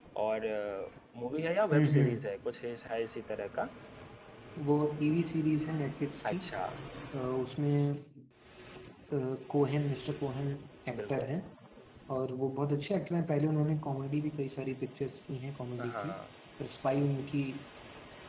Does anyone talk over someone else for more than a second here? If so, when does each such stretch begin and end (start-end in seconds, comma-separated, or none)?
none